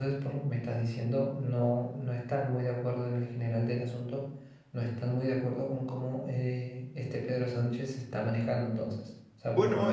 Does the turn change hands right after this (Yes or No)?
No